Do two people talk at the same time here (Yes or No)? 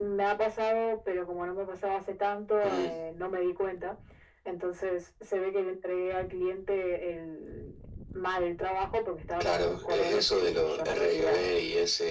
Yes